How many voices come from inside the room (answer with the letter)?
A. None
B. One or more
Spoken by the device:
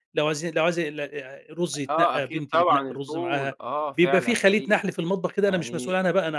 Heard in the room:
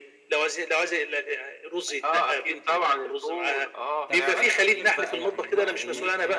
B